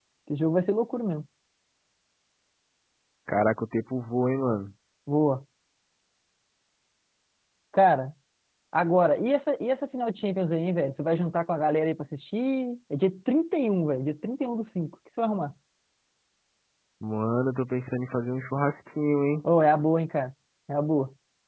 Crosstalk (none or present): none